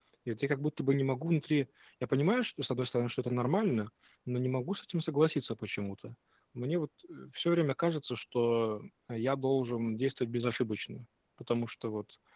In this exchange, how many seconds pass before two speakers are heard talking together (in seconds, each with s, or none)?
none